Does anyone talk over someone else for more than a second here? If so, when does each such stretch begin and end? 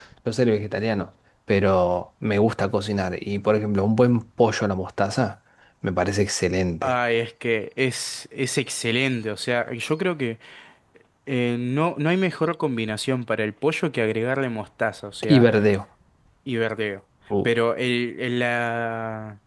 none

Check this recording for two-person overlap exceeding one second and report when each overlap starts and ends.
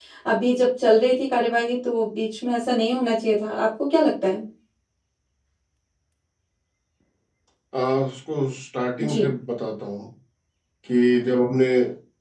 none

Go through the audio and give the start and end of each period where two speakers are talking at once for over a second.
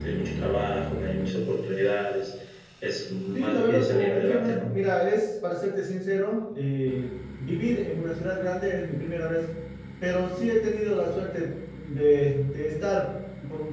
3.3-4.7

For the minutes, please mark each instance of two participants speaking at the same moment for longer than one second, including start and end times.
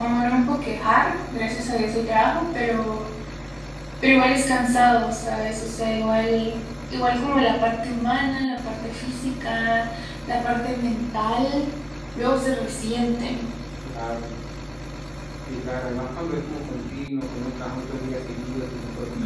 none

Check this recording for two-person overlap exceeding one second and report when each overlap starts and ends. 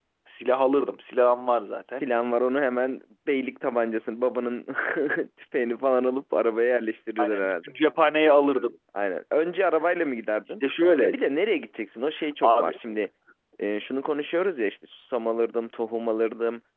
none

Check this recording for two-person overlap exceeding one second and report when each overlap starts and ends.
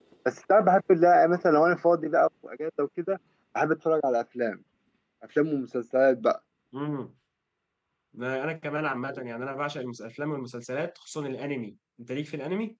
none

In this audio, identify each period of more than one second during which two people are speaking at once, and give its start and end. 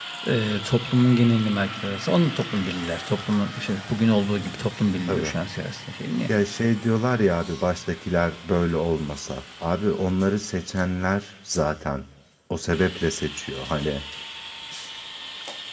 none

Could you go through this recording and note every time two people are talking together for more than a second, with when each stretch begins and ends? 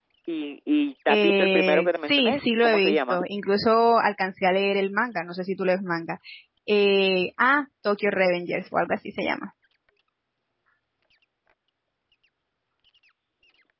1.1-3.2

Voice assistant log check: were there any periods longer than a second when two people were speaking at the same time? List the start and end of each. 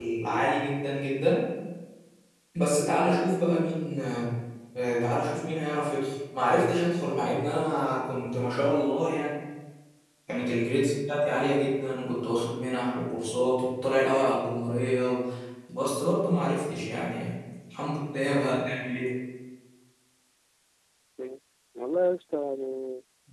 none

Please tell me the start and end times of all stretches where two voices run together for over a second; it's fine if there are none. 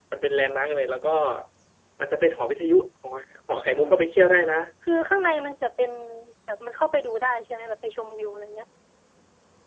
none

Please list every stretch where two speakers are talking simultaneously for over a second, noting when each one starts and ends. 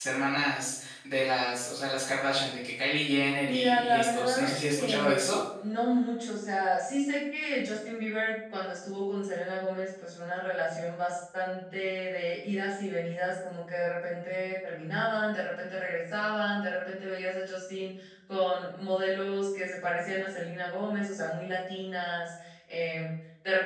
3.5-5.2

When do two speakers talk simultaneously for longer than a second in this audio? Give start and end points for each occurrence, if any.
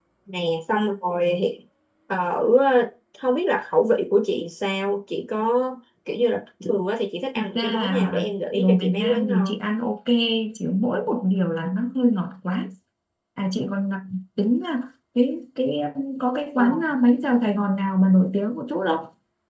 7.3-9.6

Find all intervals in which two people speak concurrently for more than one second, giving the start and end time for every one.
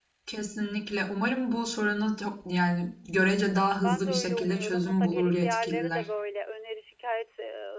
3.8-6.0

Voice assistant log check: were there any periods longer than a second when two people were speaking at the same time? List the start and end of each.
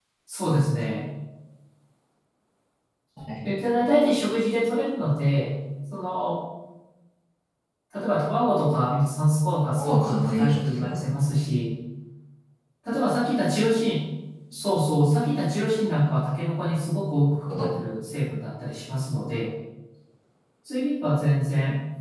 9.7-11.2

